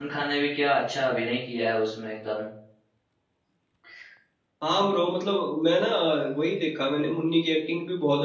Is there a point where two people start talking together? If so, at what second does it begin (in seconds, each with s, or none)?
none